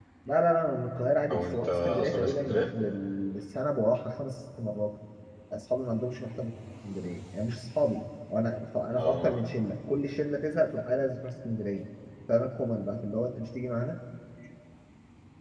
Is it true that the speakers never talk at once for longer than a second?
No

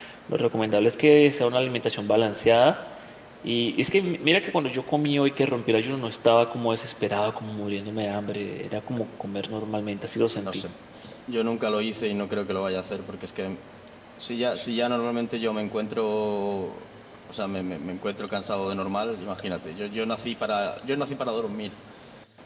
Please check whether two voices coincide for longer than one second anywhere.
No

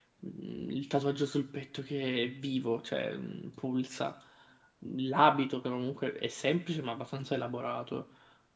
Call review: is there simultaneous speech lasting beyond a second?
No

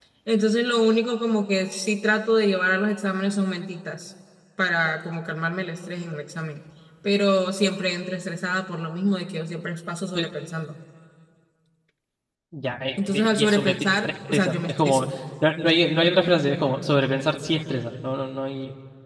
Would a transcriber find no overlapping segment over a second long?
No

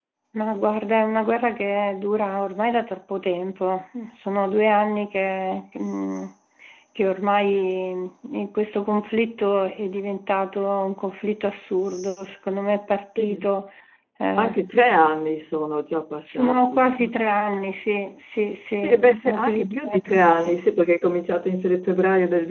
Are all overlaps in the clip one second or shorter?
No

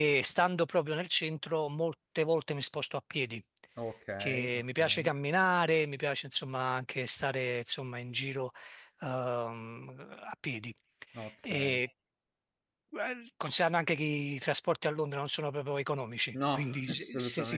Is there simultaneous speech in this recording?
Yes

